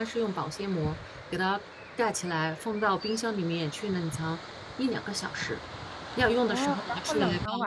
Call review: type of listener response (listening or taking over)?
taking over